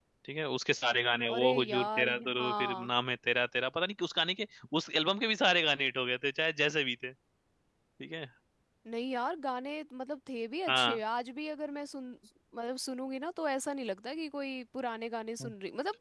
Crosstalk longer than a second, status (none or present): present